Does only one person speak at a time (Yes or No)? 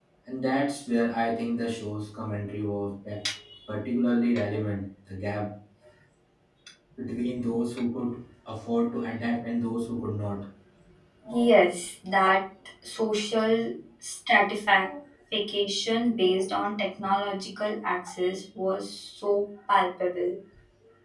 Yes